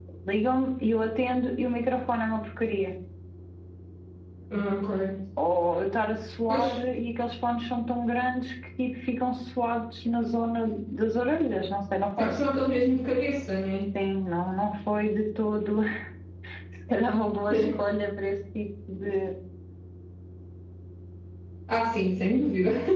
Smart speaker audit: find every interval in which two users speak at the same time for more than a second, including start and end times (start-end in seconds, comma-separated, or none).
none